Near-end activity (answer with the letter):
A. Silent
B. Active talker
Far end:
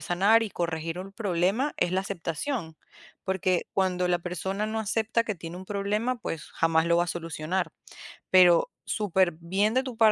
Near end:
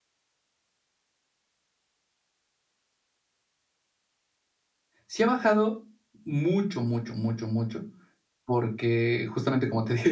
B